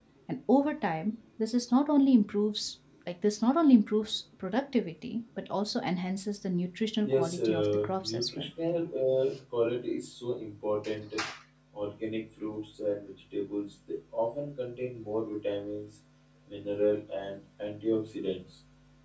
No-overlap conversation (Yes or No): No